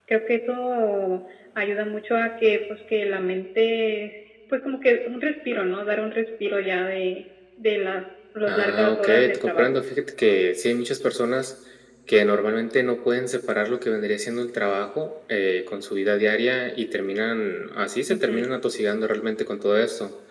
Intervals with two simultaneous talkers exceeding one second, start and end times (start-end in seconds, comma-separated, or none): 8.5-9.7